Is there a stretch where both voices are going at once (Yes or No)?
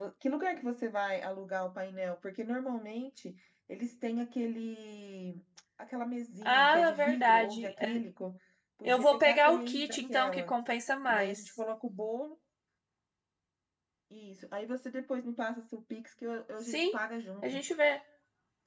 Yes